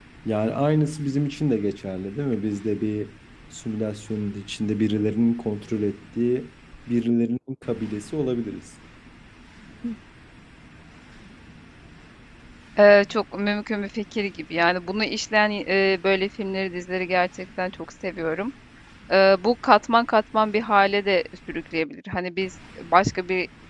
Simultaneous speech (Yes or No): No